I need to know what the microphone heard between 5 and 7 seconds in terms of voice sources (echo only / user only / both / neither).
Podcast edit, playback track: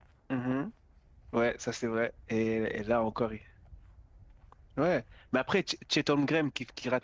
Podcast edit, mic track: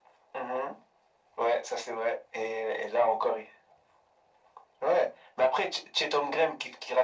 echo only